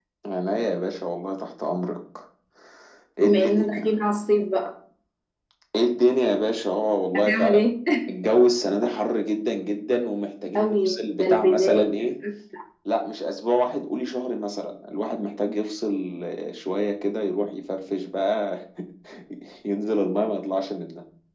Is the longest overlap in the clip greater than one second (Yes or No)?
Yes